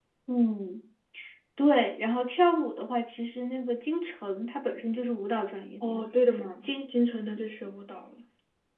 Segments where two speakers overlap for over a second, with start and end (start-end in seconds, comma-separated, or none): none